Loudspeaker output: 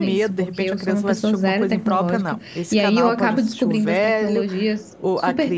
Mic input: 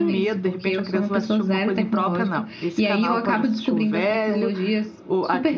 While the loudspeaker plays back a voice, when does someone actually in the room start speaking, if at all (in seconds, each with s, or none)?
none